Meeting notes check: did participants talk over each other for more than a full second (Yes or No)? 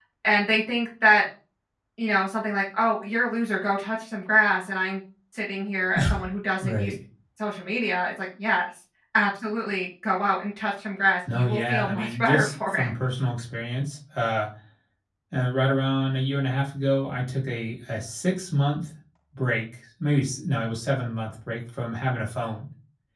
Yes